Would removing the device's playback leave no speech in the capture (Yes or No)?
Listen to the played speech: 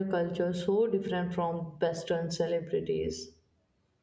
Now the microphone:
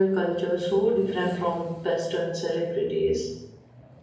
Yes